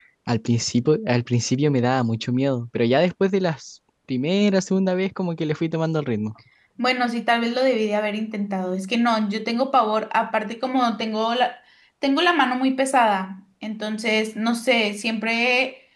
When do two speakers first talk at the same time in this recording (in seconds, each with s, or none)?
none